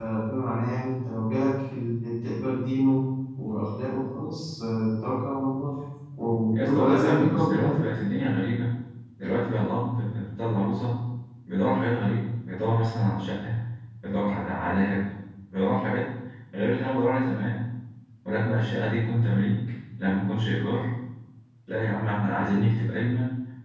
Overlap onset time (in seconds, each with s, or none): 6.5 s